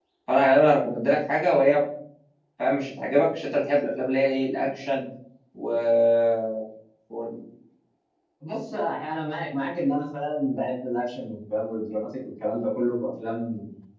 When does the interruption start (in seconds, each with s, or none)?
none